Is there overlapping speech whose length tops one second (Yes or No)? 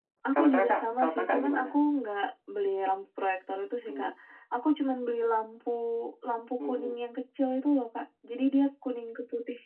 Yes